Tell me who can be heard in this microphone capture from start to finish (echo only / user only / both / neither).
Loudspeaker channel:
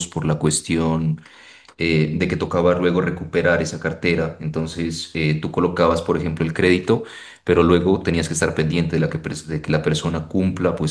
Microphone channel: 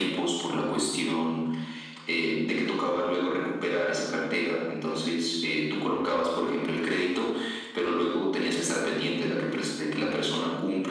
echo only